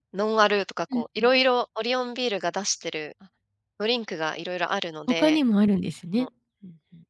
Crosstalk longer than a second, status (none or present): none